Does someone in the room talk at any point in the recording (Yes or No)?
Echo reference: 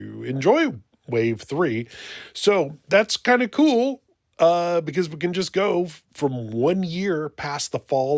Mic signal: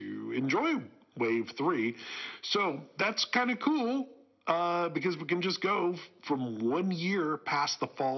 No